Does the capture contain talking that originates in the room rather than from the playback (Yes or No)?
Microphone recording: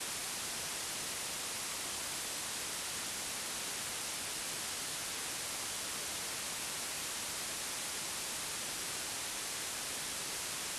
No